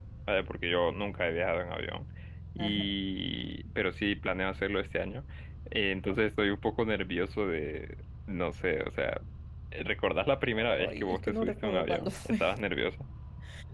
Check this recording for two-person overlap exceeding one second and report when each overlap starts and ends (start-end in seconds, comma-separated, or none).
10.8-12.3